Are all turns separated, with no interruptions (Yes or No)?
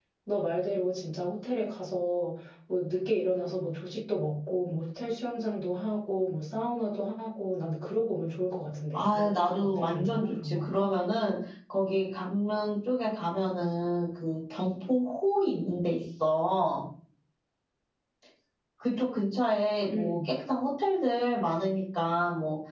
No